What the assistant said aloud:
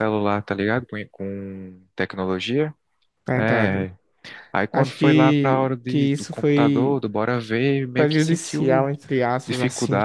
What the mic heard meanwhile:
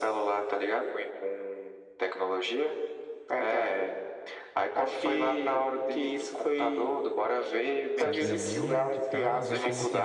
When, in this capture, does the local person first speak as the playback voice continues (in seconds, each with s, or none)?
8.0 s